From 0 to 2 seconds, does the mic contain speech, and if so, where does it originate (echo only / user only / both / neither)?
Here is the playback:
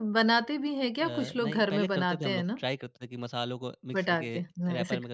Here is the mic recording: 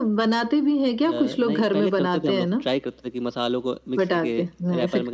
echo only